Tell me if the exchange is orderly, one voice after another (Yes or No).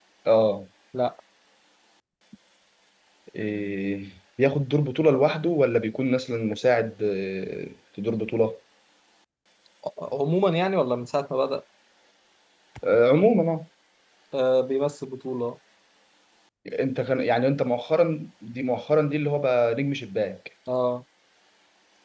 Yes